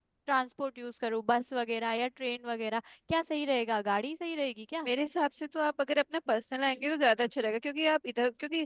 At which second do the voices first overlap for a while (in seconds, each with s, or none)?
none